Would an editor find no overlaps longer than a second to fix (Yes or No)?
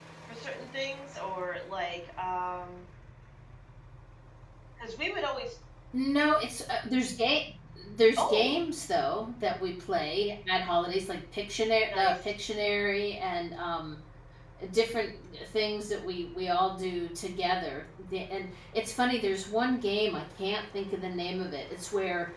Yes